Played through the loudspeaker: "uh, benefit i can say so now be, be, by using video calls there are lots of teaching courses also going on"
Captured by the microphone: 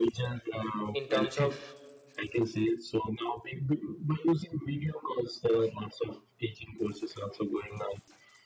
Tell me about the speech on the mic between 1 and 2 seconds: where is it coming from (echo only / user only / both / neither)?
both